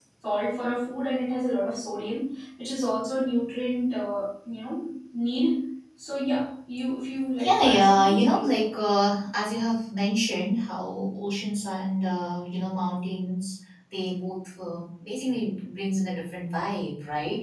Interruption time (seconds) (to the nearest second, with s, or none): 7 s